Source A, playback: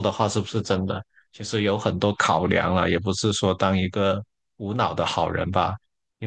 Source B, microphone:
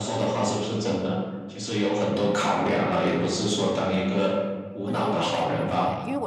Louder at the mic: echo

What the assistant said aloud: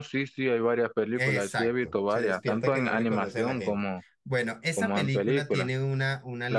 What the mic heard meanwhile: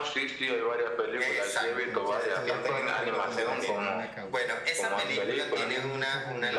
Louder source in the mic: echo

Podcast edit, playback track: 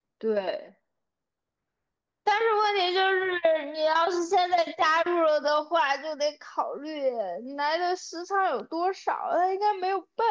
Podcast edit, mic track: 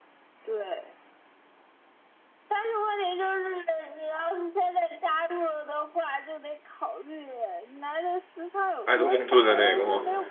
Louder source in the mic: user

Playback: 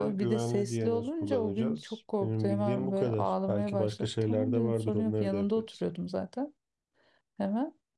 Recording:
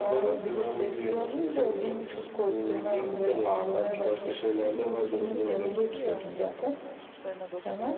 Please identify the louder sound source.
echo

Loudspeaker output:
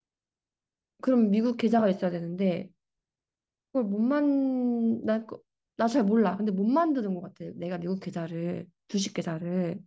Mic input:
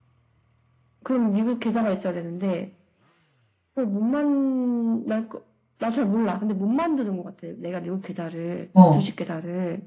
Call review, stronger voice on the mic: user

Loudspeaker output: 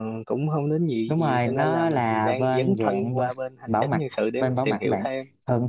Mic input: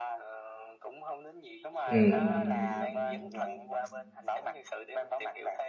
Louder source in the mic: user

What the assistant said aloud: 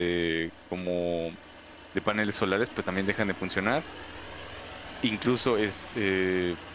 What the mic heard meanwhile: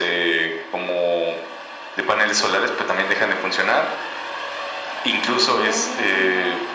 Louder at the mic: echo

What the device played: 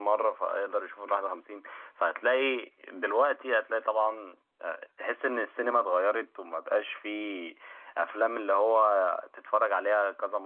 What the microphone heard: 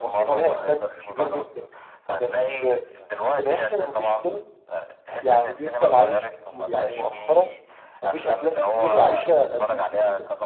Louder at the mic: user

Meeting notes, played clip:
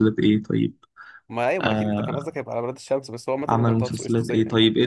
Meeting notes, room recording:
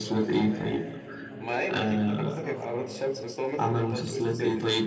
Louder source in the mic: echo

